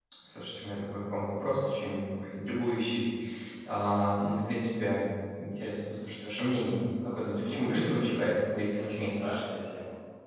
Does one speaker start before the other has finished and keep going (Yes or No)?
Yes